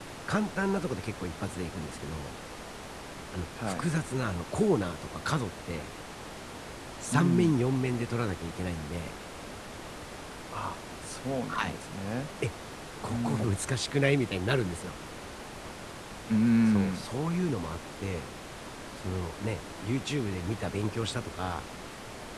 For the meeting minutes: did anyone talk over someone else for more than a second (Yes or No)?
No